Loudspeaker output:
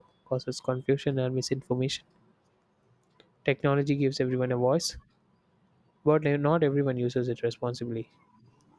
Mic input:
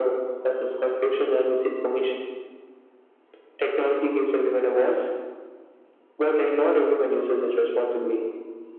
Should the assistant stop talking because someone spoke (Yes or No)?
No